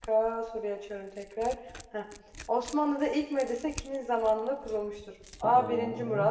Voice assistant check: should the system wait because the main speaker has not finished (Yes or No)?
Yes